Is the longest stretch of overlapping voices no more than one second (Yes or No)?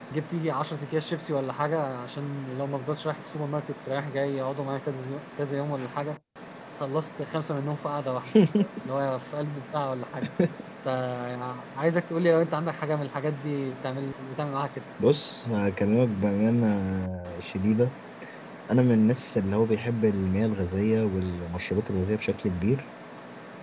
Yes